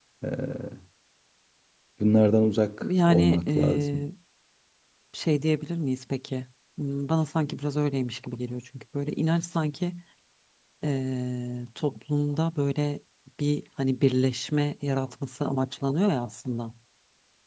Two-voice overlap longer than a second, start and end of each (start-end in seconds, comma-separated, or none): 2.8-4.0